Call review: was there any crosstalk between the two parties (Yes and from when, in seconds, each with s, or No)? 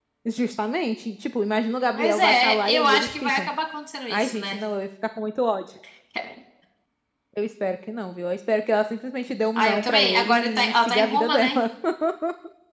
Yes, from 1.9 s